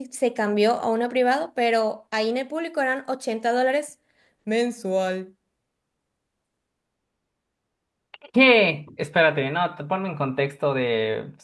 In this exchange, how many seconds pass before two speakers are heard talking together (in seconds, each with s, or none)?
none